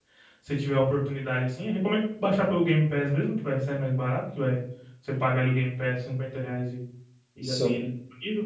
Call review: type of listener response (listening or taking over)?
listening